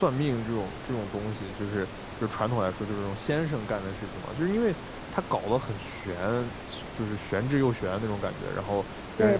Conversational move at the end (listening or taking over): listening